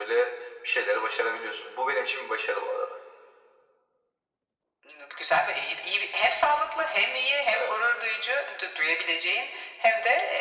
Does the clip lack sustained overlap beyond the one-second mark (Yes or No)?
Yes